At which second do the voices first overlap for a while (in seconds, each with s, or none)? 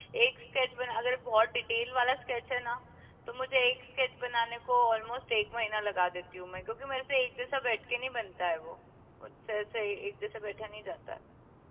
none